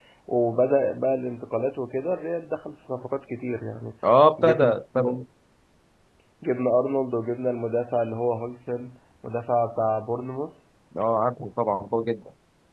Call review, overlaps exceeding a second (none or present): none